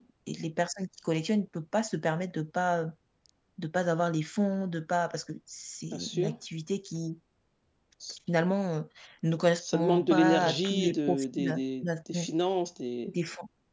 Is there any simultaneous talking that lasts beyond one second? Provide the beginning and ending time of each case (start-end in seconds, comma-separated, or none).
9.6-11.6